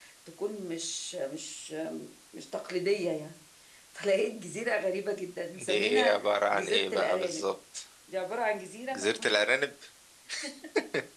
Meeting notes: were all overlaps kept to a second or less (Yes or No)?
No